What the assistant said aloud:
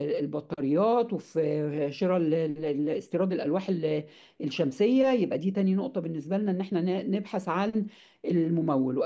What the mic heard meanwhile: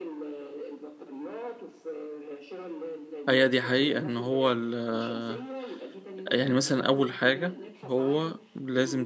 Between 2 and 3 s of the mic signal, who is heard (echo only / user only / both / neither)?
echo only